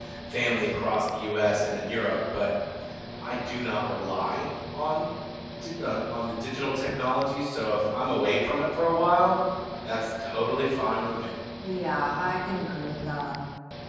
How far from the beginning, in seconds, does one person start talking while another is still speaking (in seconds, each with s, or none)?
none